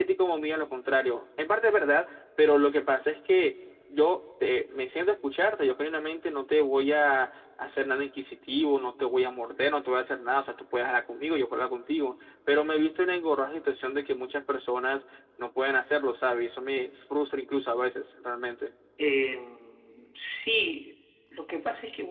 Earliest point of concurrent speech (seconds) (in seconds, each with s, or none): none